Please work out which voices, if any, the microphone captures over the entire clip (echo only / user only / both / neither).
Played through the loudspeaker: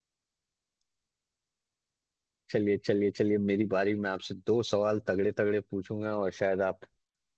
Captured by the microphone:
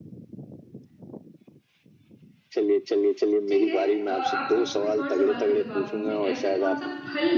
both